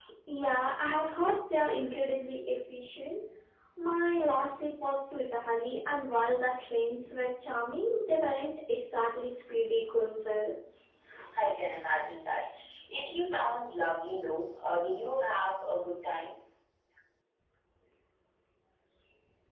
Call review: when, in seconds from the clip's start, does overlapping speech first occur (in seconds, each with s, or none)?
none